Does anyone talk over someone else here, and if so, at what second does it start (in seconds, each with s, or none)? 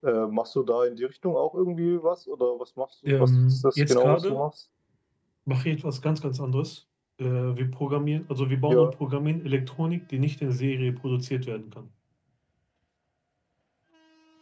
3.1 s